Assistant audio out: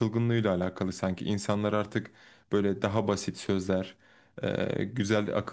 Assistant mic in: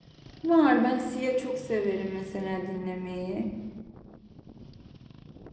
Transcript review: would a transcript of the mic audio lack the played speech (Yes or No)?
Yes